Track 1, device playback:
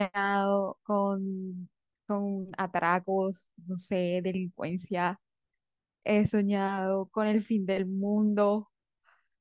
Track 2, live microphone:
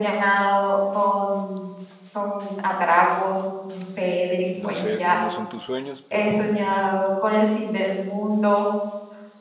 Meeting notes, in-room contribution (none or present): present